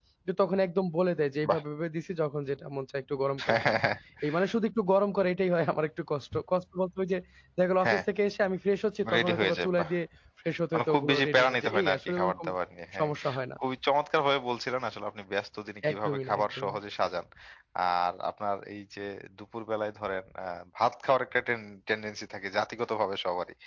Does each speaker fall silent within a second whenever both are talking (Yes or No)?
No